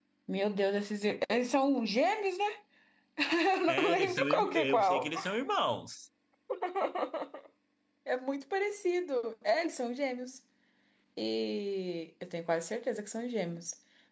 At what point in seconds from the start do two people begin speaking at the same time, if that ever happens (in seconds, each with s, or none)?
3.7 s